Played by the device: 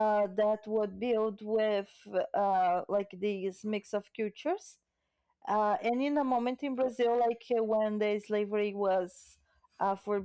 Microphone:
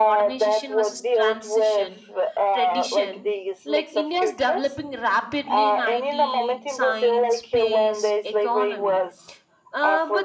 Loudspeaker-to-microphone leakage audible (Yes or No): Yes